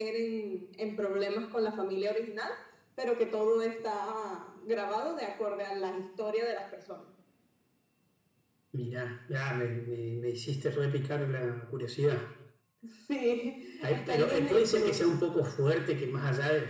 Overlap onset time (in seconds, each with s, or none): 13.8 s